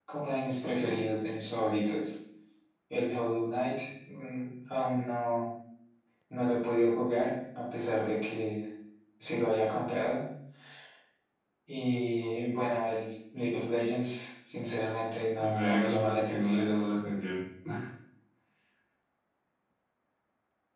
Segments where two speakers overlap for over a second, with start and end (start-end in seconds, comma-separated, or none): 15.4-16.6